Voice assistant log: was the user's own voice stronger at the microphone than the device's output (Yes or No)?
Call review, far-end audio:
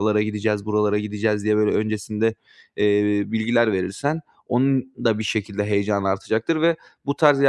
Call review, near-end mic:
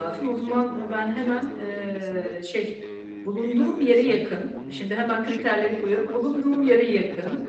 Yes